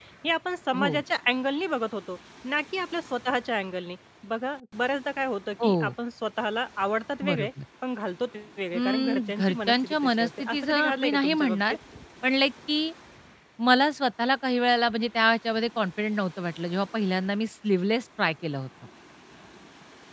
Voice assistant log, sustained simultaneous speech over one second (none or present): present